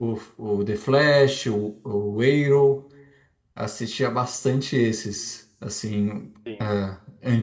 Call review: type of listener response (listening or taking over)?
listening